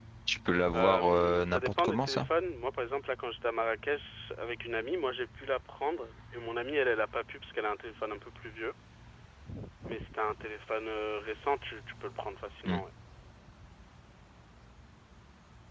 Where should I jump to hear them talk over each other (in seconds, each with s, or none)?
0.7 s